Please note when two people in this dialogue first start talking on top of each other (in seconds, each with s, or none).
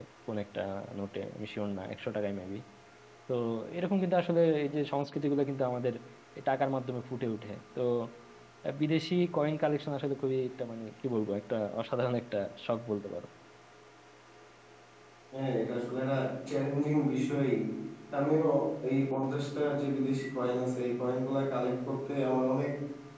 none